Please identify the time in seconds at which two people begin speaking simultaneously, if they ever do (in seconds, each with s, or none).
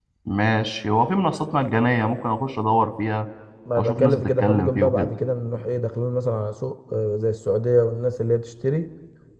3.8 s